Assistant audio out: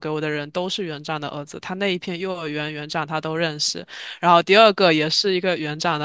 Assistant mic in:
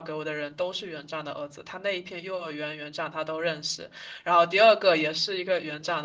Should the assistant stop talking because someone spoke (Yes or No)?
No